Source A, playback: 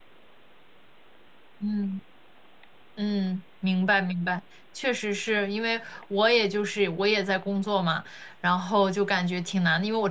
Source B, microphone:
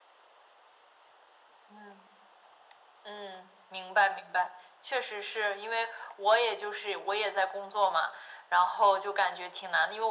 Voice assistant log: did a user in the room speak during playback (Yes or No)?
No